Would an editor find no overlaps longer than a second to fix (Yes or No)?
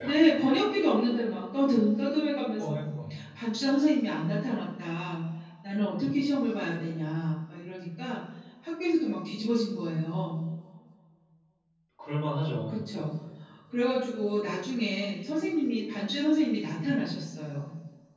Yes